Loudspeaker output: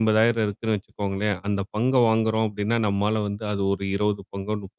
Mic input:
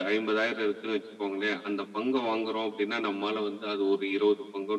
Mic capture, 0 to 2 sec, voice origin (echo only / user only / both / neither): echo only